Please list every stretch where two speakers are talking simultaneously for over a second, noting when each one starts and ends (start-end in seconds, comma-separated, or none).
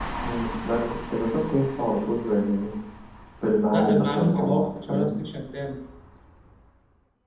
3.7-5.2